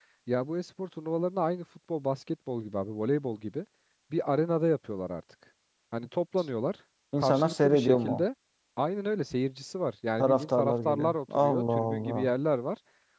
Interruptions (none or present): present